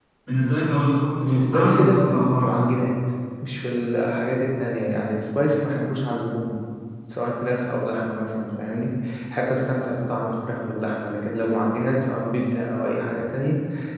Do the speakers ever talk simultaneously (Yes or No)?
Yes